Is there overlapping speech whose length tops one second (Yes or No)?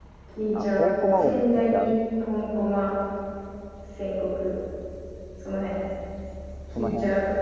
Yes